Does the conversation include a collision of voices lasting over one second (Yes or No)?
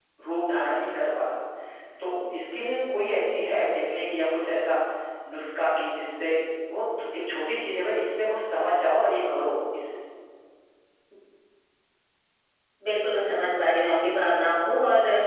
No